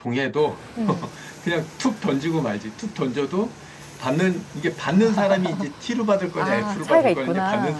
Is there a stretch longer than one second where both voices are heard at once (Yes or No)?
Yes